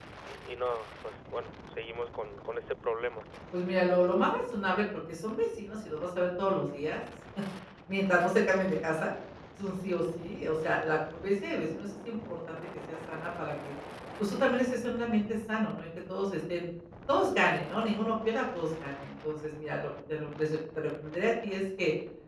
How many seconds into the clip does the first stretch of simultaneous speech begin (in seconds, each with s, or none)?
none